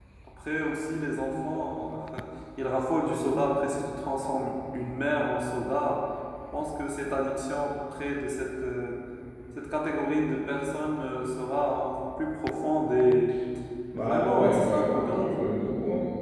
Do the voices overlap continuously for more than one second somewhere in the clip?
Yes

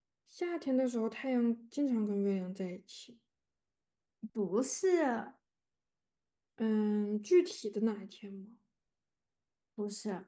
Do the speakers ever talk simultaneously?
No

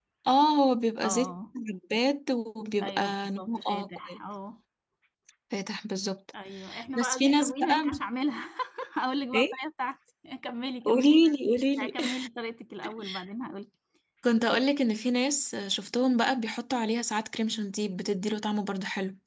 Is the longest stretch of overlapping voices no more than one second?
No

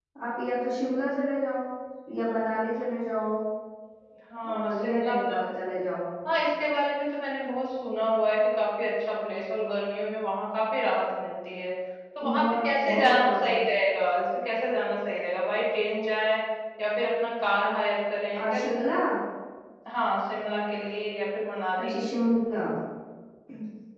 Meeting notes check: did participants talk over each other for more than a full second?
Yes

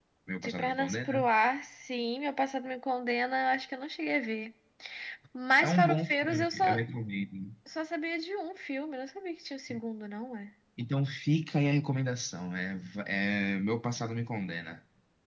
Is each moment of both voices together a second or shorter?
No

